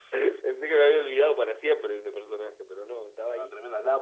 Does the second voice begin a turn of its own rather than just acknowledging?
Yes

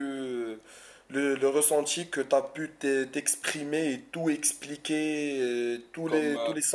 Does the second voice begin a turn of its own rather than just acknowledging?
No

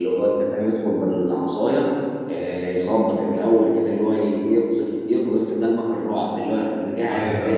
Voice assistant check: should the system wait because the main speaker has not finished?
Yes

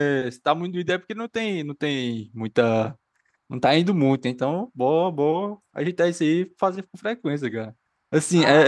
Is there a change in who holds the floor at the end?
Yes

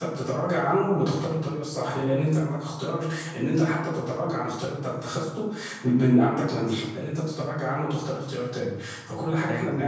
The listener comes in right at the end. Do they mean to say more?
No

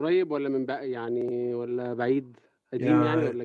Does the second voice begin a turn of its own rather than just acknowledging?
Yes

